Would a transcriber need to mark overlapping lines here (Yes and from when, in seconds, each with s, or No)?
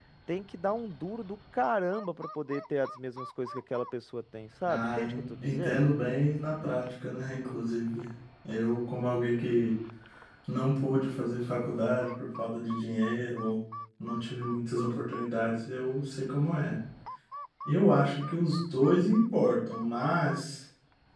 Yes, from 4.7 s